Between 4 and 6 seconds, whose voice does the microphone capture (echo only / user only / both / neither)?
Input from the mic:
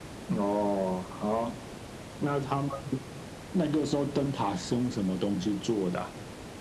echo only